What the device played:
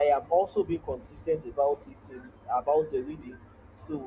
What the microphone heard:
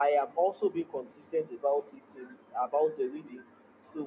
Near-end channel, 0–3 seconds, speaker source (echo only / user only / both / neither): echo only